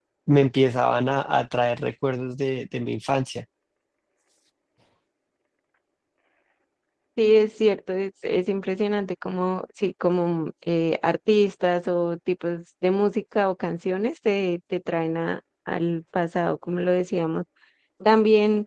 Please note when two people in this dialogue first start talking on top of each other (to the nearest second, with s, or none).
none